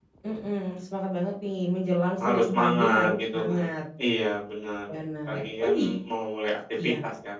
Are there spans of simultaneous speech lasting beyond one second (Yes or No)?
Yes